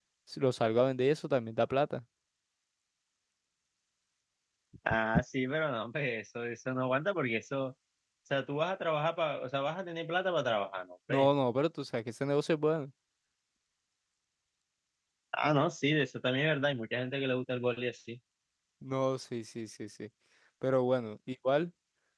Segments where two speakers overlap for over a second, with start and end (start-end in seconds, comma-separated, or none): none